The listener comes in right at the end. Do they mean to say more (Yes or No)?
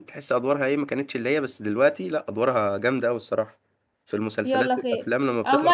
Yes